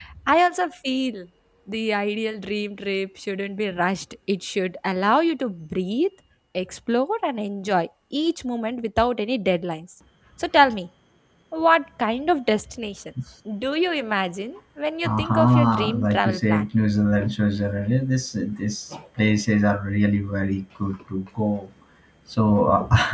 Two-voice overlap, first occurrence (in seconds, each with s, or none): 15.1 s